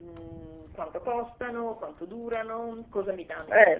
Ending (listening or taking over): listening